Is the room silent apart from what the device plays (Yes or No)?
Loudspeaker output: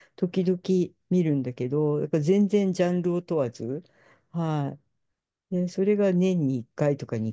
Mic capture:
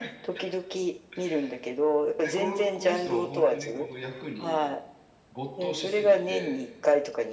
No